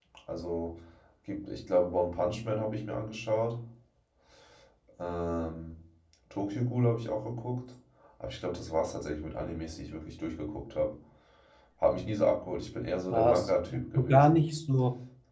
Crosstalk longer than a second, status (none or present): present